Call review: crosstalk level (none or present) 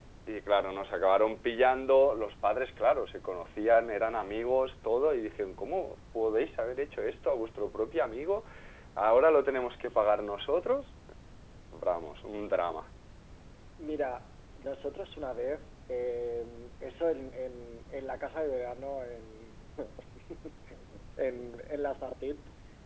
none